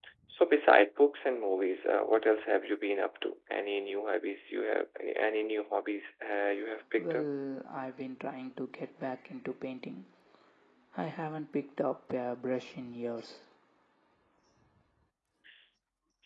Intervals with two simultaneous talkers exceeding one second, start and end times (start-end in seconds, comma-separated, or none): none